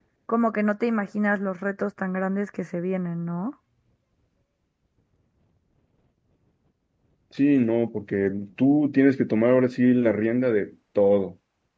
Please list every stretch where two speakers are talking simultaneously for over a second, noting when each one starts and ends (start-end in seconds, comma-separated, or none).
none